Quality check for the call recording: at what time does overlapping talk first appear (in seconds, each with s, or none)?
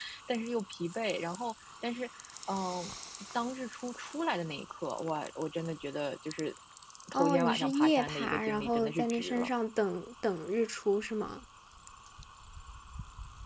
7.1 s